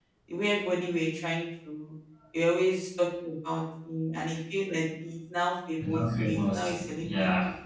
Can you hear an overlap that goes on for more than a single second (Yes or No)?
Yes